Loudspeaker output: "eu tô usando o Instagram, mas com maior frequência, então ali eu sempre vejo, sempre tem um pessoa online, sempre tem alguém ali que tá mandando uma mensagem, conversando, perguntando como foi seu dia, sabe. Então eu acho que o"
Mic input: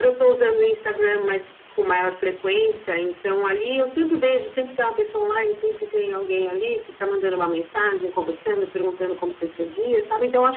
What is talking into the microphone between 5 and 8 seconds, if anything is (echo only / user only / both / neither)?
echo only